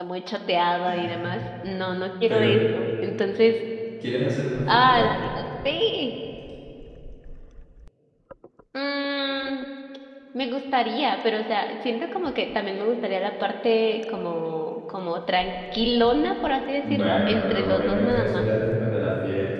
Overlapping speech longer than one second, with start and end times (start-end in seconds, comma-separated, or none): 16.8-18.4